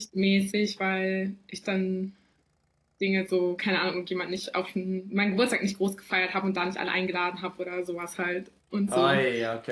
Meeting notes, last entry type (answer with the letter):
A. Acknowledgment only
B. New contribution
B